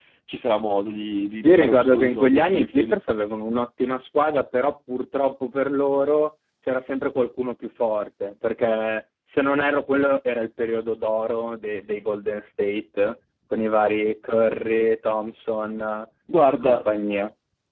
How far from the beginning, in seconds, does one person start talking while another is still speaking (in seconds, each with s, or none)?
1.4 s